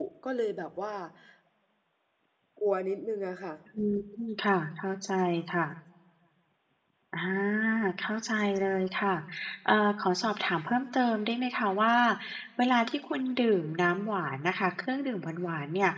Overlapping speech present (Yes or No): No